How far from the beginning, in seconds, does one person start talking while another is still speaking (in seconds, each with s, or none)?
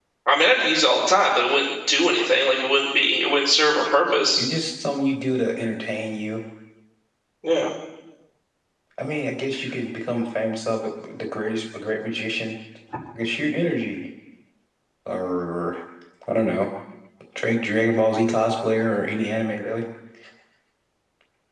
none